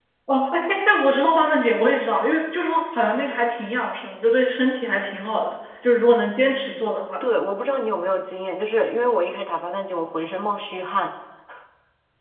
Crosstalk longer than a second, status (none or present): none